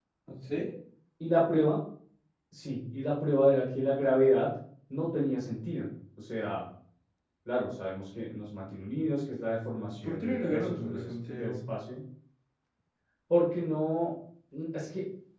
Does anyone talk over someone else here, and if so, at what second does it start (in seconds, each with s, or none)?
9.9 s